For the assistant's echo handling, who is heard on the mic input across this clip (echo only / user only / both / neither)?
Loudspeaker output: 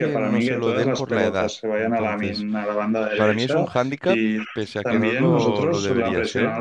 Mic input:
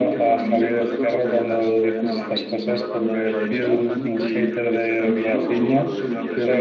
both